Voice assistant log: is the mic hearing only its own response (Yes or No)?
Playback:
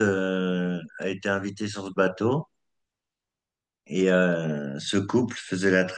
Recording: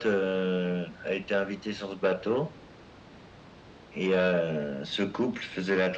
Yes